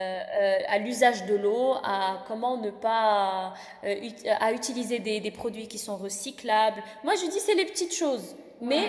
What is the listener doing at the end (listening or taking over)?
listening